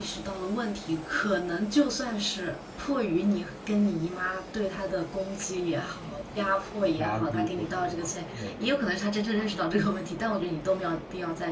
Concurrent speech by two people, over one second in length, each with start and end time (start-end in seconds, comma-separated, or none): 7.0-8.5